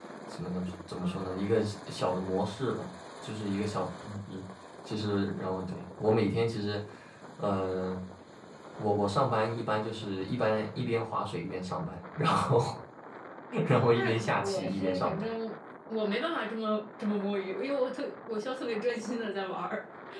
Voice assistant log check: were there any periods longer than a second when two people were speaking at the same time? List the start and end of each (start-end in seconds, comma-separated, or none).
13.9-15.3